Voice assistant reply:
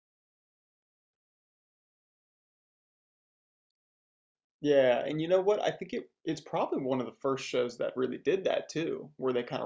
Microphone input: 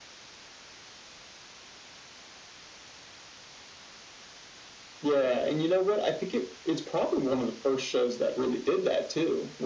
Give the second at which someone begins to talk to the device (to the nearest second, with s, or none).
none